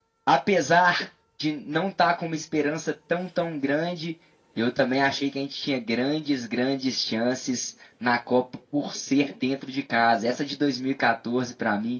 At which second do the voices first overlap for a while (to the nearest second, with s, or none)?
none